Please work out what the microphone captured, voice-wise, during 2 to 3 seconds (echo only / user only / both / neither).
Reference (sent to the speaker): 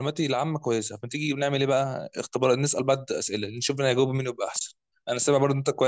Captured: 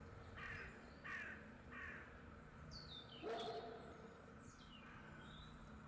neither